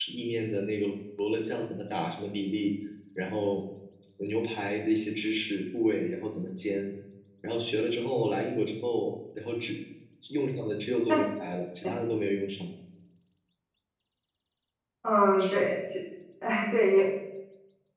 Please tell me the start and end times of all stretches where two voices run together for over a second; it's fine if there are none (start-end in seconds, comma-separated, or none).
none